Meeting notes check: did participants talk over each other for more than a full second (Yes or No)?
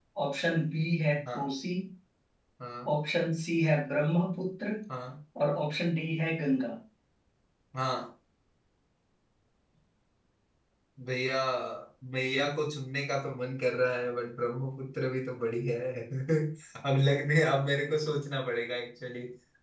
No